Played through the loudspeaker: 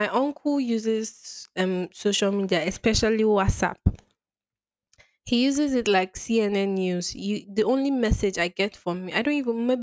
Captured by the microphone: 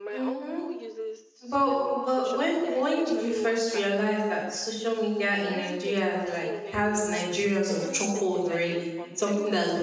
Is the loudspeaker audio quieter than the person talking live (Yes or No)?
Yes